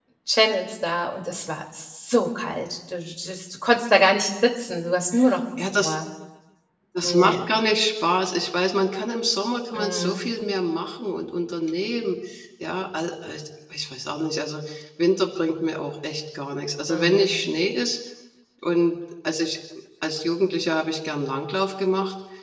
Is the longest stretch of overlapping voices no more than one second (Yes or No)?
Yes